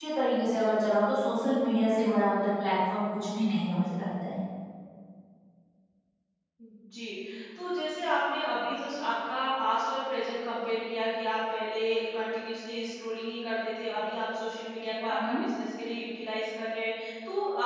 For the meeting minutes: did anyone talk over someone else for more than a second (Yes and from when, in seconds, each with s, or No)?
No